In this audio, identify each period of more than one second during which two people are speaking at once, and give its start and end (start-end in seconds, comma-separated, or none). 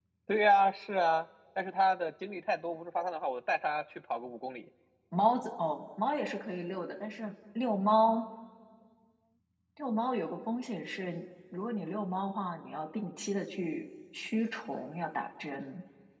none